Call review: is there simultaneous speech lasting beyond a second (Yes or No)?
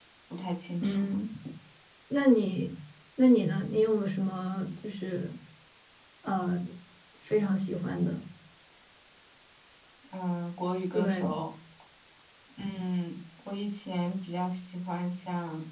No